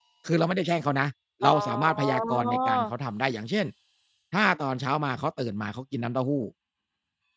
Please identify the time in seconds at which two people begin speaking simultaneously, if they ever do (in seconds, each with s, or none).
1.4 s